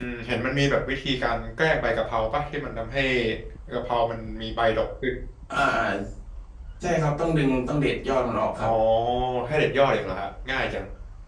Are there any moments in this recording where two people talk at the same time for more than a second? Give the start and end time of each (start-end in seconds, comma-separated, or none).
none